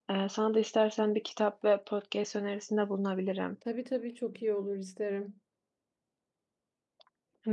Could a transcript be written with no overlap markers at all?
Yes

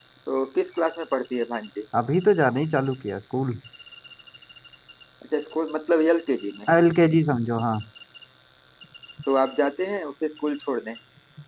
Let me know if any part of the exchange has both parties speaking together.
No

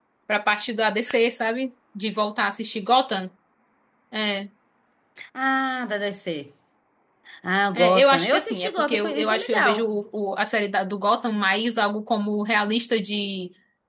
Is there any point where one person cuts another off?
Yes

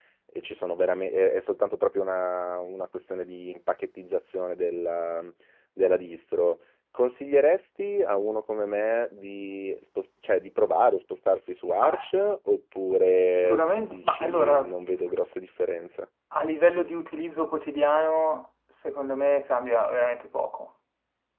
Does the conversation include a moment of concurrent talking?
Yes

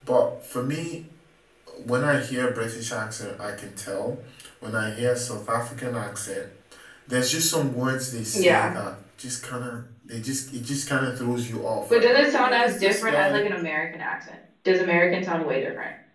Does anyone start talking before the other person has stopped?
Yes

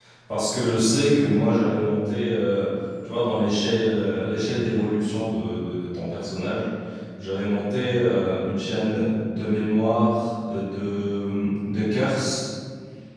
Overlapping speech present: No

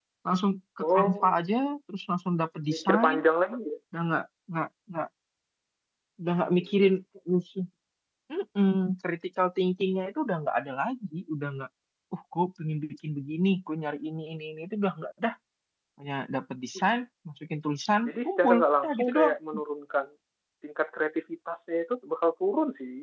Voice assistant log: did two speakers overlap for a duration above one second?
Yes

